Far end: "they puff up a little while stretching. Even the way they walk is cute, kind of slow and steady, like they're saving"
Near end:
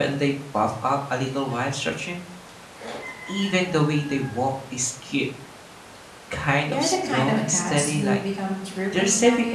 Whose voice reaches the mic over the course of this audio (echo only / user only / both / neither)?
both